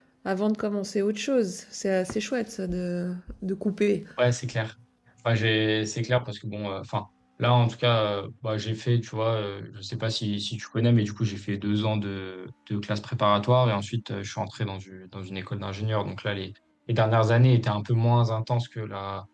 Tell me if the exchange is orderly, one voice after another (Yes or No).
Yes